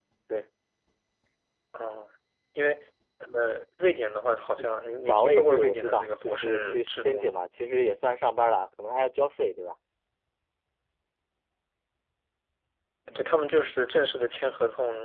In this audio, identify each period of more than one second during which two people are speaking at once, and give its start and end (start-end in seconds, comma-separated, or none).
5.1-7.3